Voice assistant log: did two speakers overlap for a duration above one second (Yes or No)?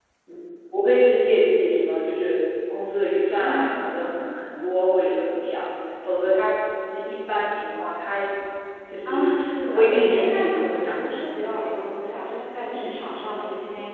Yes